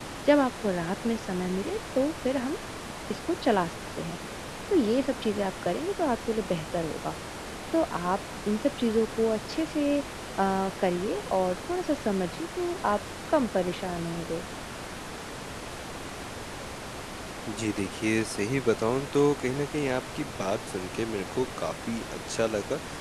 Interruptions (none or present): none